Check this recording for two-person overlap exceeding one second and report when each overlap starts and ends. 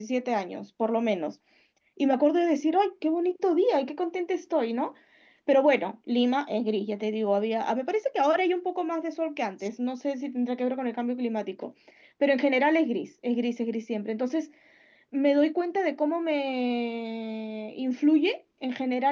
none

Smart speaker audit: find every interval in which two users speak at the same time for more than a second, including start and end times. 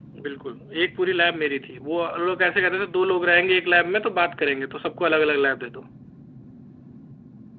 none

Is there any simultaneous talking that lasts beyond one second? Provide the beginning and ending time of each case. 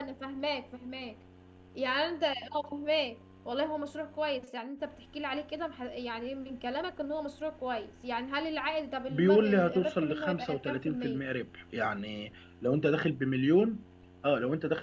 9.1-11.2

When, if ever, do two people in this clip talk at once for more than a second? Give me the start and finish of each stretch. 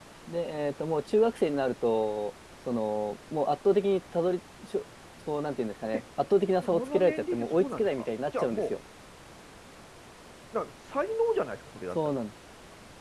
6.7-8.7

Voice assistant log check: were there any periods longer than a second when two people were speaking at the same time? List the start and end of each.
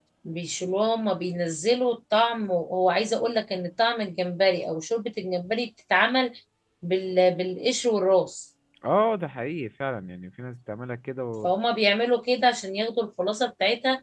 none

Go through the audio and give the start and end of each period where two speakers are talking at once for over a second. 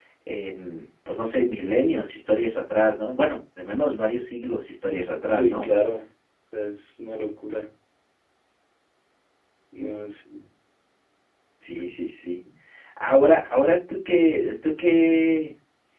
none

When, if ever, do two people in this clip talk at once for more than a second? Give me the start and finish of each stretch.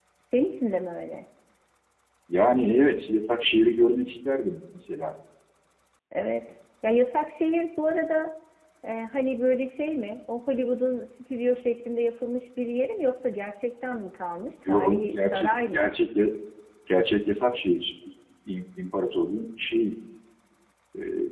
14.7-15.9

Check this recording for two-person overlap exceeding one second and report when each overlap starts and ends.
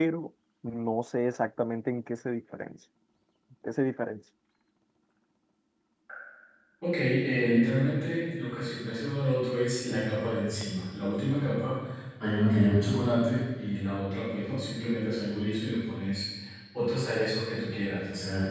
none

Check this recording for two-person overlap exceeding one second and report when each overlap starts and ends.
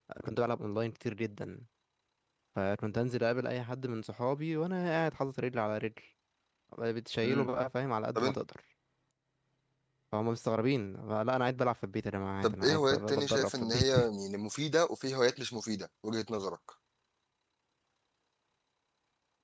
12.4-13.9

